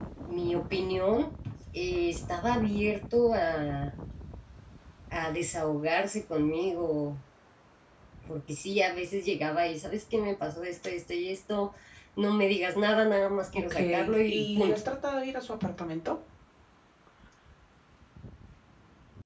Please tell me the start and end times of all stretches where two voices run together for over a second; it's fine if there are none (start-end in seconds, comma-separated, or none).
13.5-14.8